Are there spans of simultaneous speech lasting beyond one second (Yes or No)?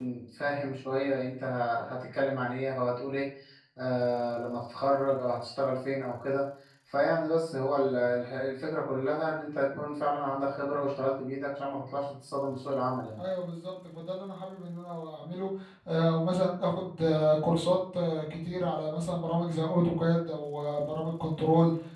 No